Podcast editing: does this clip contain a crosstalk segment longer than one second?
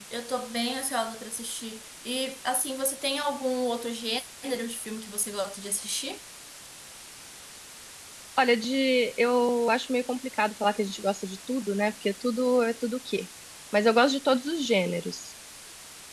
No

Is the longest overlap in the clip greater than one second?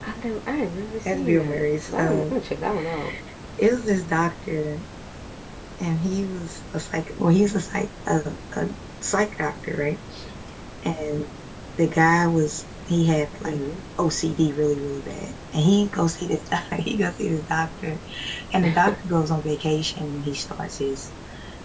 Yes, from 1.1 s

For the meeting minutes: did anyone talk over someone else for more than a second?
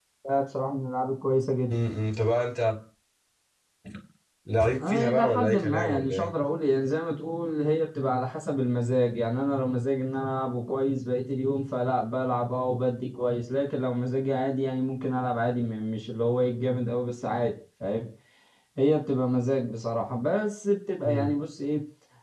Yes, from 4.9 s

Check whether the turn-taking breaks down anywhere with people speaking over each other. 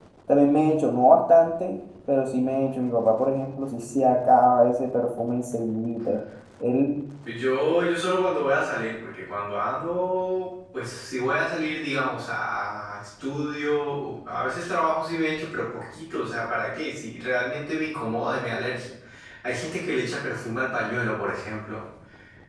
No

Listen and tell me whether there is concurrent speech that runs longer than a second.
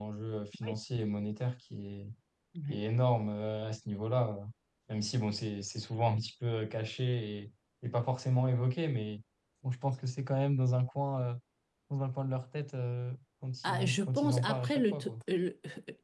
Yes, from 13.6 s

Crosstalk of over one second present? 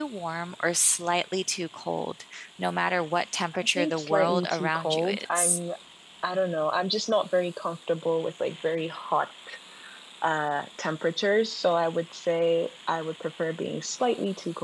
Yes, from 3.8 s

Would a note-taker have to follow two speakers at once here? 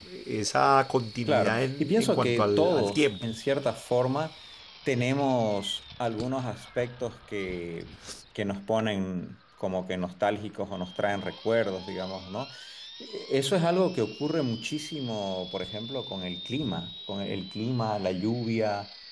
Yes, from 1.3 s

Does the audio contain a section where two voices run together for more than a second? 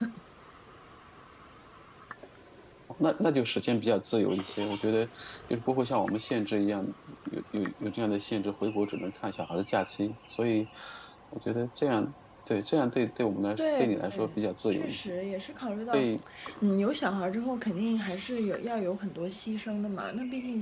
Yes, from 13.6 s

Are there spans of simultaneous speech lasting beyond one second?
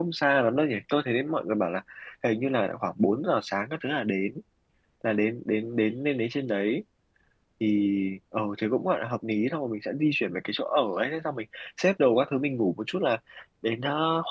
No

